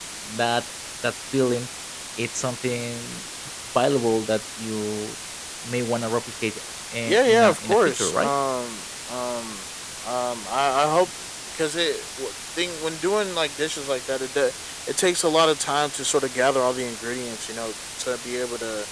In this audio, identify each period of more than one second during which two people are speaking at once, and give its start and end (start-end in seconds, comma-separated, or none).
7.1-8.3